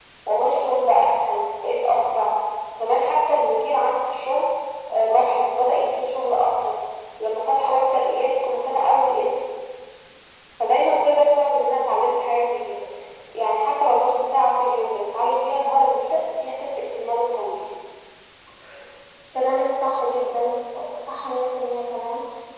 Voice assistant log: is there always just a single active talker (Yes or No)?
Yes